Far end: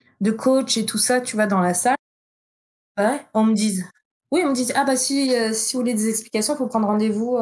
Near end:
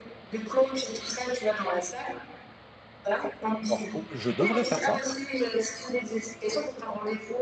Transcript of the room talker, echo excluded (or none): alors oh, je devrais faire ça